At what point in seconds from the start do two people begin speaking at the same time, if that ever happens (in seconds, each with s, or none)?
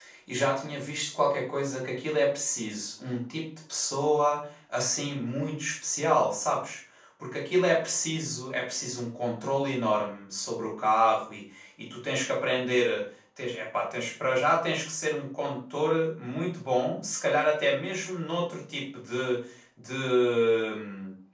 none